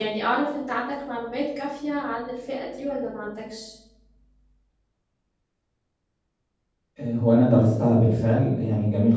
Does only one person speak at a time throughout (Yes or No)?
Yes